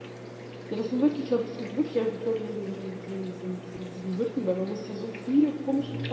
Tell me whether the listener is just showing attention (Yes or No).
Yes